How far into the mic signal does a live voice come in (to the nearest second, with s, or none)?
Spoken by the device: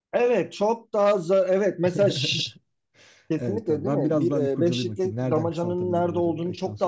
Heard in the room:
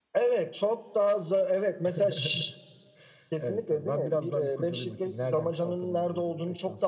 none